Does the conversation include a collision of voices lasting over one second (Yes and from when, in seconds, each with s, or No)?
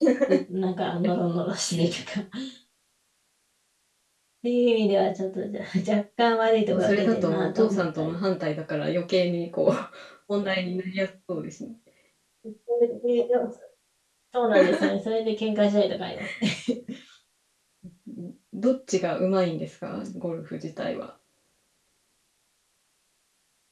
Yes, from 6.7 s